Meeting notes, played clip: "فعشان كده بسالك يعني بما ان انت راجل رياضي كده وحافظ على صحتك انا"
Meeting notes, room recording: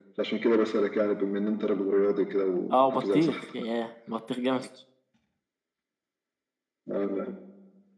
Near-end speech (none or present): present